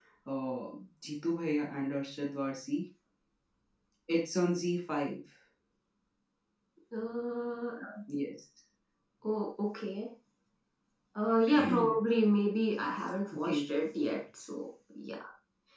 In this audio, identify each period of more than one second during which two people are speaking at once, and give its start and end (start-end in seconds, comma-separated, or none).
none